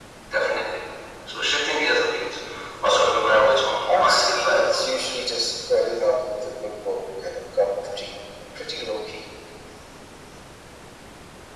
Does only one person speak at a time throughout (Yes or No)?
No